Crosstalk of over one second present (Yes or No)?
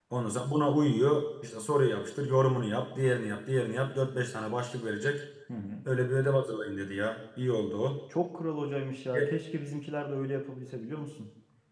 No